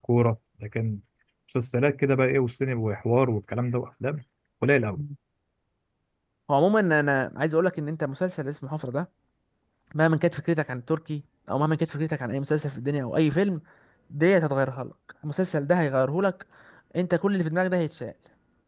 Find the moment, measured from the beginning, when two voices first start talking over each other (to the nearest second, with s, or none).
none